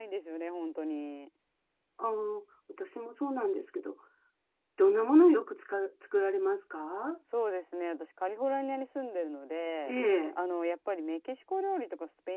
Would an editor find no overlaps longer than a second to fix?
Yes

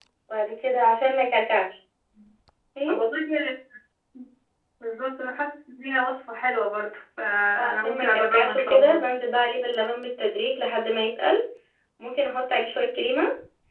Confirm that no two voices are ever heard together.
No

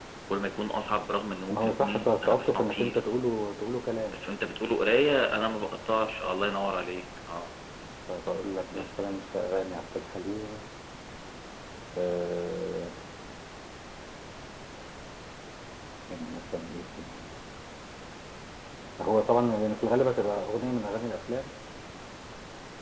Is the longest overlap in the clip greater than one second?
Yes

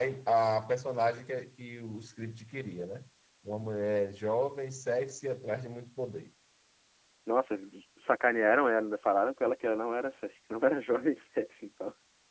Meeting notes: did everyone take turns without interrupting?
Yes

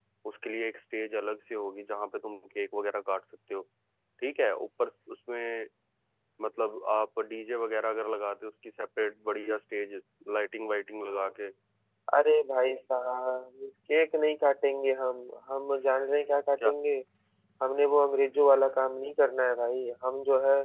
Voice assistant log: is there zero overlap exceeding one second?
Yes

